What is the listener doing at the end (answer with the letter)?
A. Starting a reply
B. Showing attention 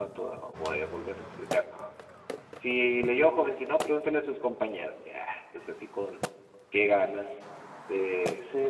B